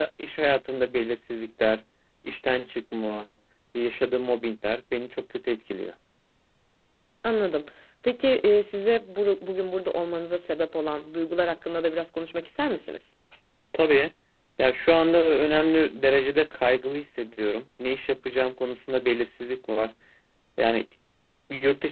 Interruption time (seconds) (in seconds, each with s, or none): none